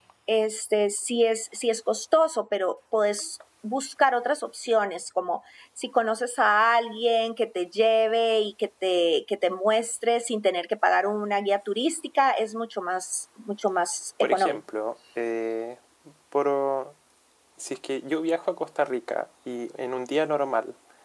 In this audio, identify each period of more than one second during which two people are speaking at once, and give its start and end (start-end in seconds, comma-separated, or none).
none